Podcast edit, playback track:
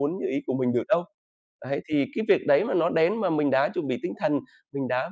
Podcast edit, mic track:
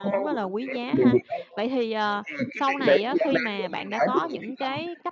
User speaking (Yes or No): Yes